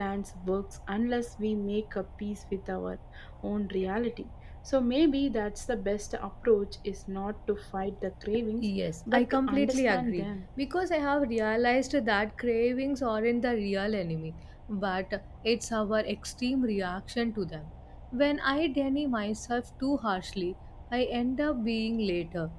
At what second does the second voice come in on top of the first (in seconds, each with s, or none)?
9.1 s